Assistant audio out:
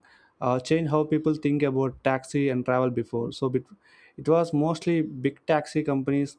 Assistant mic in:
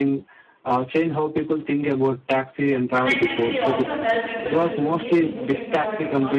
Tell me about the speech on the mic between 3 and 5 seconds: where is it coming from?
both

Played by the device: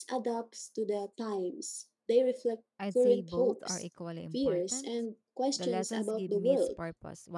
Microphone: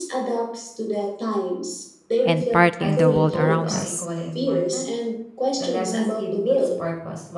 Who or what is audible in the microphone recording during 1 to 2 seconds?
echo only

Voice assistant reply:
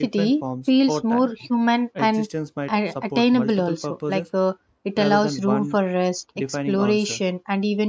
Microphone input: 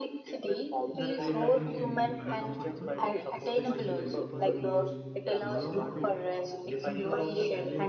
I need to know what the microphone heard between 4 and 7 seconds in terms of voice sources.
both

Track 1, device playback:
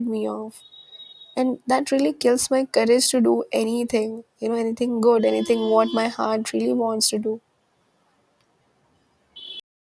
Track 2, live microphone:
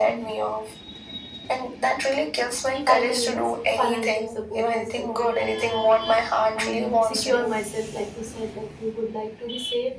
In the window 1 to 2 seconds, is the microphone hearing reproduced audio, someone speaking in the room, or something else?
echo only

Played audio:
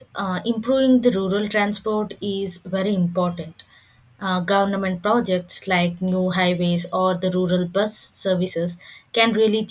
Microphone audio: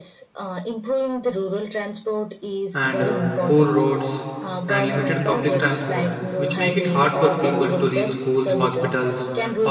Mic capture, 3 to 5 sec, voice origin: both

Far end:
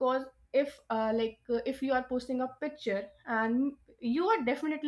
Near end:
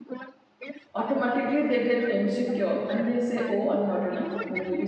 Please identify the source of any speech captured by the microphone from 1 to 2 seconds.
both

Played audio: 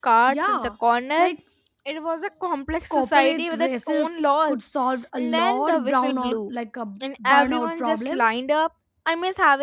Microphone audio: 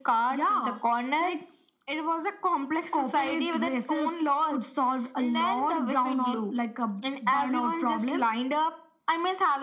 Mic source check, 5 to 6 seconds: echo only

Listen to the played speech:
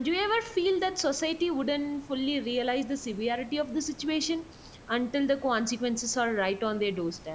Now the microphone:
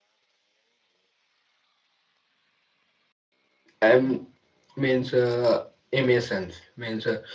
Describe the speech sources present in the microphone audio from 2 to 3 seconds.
neither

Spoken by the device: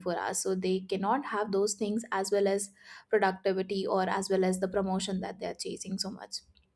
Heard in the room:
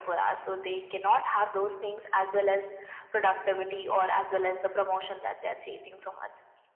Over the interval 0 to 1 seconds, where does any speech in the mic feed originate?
echo only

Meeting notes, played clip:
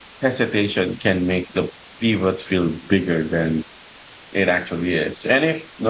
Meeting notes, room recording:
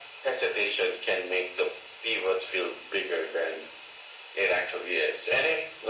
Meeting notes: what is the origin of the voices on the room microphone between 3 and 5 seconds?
echo only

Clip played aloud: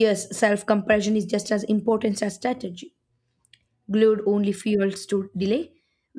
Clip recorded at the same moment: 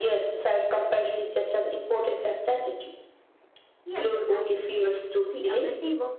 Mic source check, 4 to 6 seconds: both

